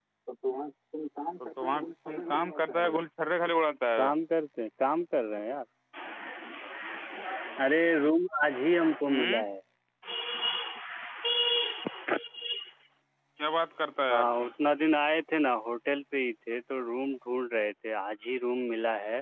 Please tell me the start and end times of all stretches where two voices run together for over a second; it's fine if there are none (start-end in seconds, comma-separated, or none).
1.6-3.0